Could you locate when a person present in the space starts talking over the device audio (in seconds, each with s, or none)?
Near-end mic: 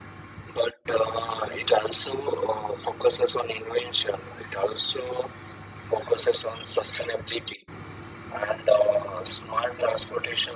none